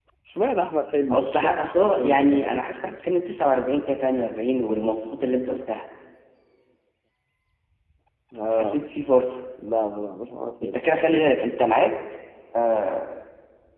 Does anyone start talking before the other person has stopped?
Yes, from 1.1 s

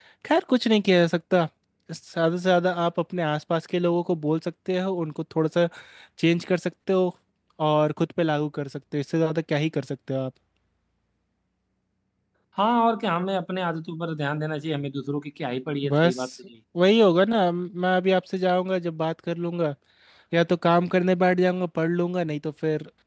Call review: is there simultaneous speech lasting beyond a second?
No

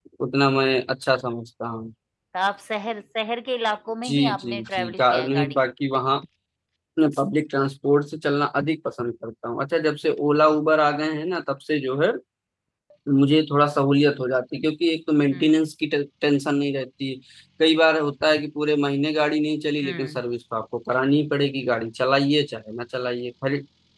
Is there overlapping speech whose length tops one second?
Yes, from 4.0 s

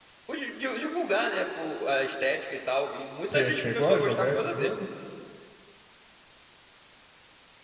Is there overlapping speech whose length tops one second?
Yes, from 3.2 s

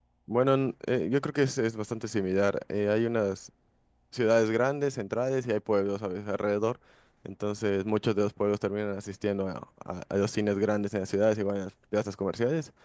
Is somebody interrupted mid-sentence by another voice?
No

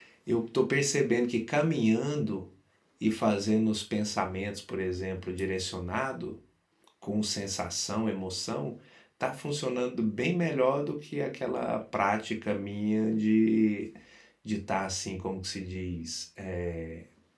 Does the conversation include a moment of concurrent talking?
No

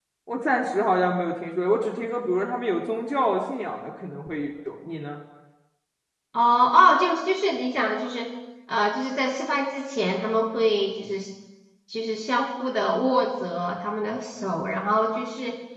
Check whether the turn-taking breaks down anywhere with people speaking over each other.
No

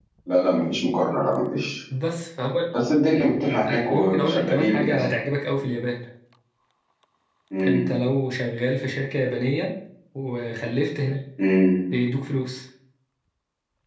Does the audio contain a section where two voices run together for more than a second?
Yes, from 3.7 s

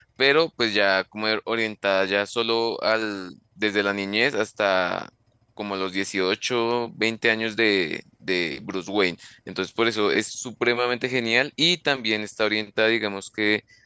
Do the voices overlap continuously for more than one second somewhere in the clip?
No

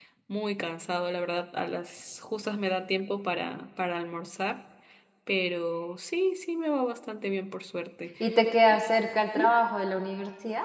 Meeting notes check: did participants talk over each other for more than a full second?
No

